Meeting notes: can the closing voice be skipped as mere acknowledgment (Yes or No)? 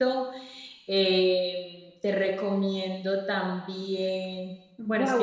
No